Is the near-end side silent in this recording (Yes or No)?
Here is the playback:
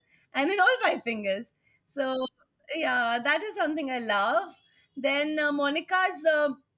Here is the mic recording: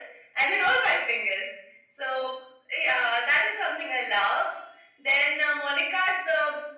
Yes